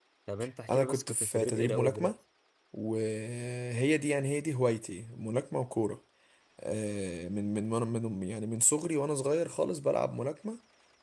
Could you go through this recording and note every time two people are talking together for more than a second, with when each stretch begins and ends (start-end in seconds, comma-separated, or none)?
0.7-2.1